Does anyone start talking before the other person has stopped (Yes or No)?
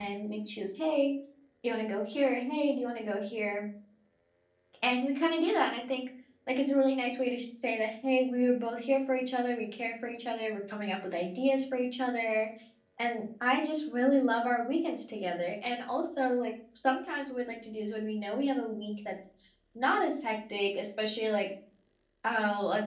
No